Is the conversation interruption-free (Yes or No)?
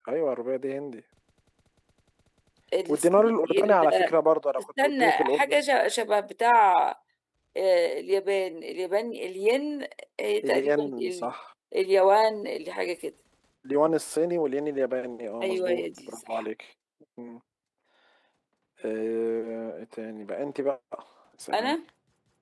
No